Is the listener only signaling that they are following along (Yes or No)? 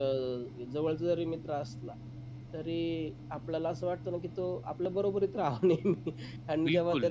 Yes